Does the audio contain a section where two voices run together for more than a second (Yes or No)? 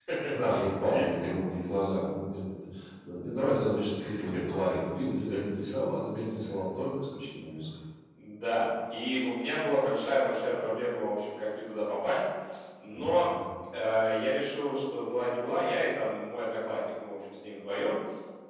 No